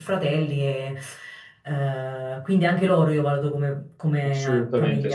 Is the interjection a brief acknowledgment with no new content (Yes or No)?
No